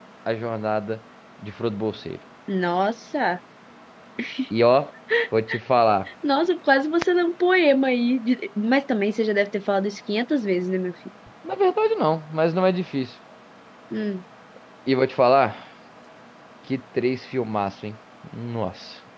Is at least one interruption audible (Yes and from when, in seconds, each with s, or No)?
No